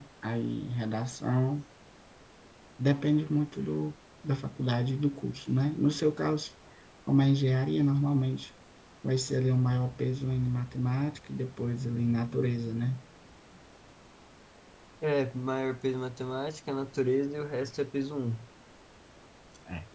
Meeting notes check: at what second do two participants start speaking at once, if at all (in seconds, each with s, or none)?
none